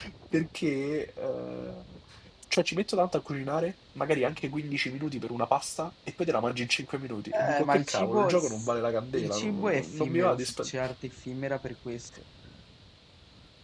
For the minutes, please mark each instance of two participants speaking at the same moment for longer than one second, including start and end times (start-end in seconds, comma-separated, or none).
7.3-8.7, 9.1-10.7